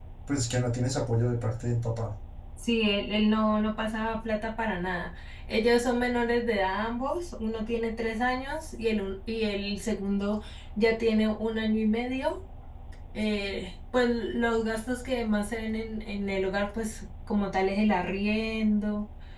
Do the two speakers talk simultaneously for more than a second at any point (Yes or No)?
No